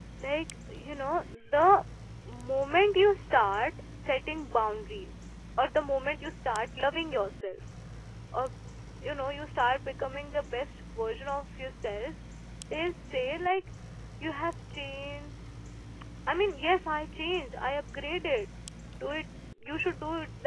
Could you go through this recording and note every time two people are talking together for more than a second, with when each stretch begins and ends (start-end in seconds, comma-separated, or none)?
none